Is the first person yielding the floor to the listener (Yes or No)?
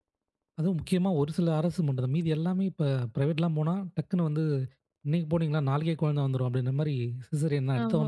Yes